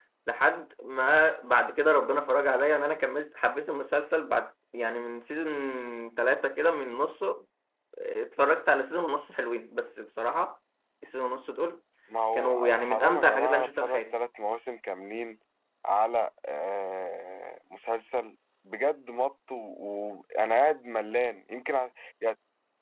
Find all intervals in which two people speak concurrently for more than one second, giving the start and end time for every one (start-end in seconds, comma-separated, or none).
12.3-14.1